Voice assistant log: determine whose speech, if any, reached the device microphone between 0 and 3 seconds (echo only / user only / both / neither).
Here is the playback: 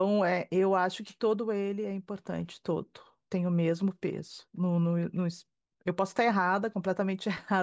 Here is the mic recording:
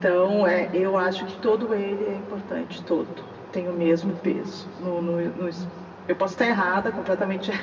echo only